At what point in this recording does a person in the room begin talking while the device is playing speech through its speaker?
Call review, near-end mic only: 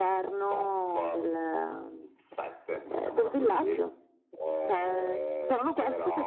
none

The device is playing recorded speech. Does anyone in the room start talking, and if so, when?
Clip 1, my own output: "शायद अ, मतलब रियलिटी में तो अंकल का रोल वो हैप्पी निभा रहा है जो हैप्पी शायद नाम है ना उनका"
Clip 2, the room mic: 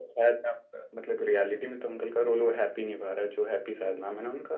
none

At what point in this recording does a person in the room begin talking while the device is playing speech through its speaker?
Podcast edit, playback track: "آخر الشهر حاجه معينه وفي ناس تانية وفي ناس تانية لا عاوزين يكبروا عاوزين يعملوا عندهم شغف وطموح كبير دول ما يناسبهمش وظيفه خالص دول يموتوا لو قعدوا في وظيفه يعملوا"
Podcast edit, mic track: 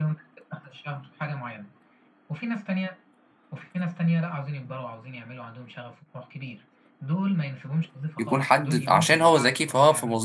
8 s

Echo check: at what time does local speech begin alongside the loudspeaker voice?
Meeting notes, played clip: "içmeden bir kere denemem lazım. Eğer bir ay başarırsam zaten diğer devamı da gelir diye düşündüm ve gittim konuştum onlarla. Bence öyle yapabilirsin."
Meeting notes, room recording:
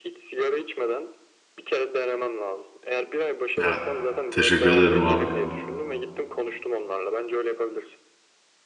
4 s

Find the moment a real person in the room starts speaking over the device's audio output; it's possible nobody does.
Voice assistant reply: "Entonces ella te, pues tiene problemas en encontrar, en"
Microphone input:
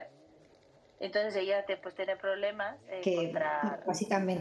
3 s

